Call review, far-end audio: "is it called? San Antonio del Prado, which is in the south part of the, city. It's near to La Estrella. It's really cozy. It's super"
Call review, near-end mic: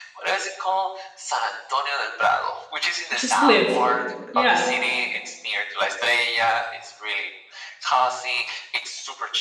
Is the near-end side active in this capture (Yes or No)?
Yes